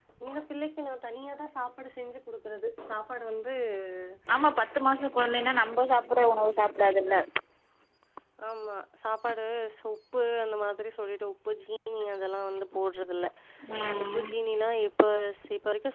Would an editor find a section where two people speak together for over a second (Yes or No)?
No